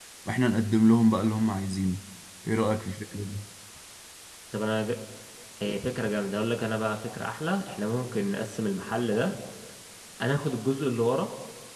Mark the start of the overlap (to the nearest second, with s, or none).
none